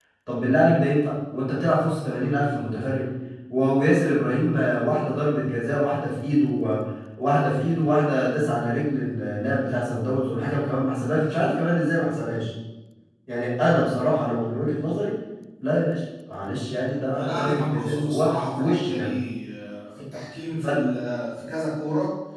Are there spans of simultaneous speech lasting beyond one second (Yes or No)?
Yes